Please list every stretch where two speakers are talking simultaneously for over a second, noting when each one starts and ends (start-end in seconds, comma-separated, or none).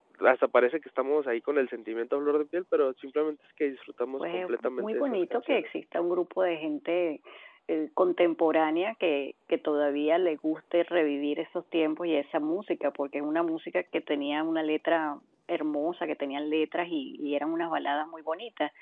4.2-5.7